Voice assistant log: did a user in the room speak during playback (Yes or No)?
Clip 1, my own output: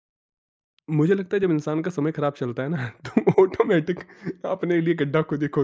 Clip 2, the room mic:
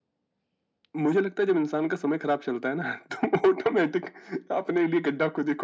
No